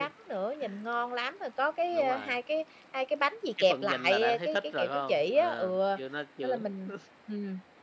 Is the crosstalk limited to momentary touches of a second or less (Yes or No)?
No